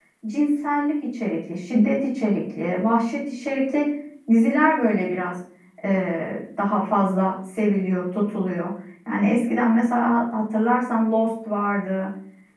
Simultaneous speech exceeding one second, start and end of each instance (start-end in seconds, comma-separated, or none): none